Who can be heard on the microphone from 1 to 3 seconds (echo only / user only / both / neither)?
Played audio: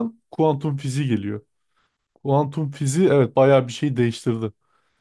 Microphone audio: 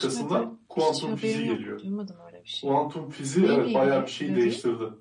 both